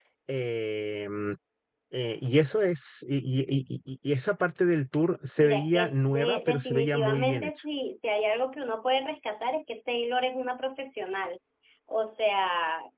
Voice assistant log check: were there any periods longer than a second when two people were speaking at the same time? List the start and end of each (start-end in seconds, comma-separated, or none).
5.4-7.5